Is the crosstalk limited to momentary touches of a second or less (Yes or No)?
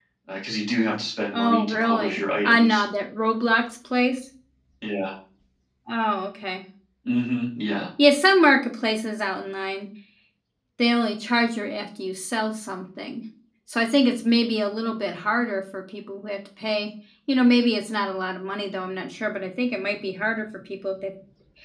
No